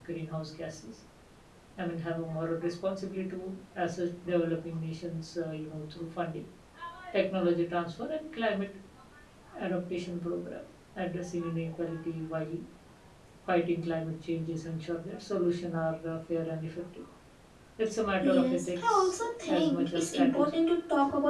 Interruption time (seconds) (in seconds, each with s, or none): 18.2 s